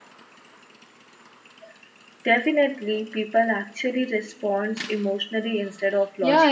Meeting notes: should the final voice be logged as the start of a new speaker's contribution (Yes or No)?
Yes